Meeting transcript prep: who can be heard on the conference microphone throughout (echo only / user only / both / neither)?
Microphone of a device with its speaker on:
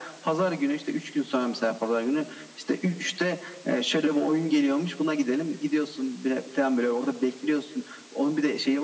echo only